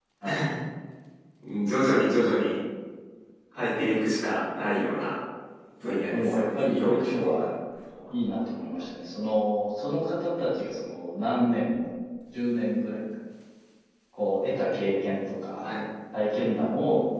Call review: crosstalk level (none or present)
present